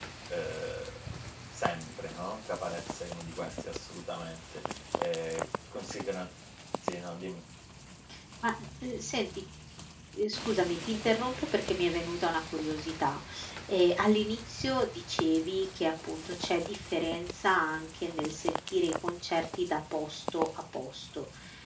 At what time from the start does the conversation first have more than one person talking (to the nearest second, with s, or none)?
none